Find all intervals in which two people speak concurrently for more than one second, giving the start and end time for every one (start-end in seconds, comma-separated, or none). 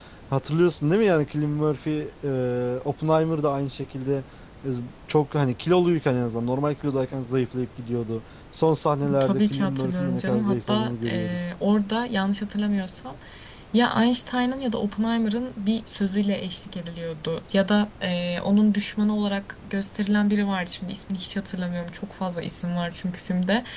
9.2-11.4